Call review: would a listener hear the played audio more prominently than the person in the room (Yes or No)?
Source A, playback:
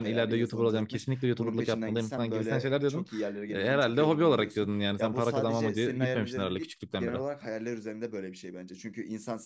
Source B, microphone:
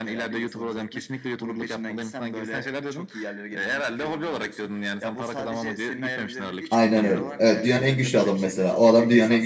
No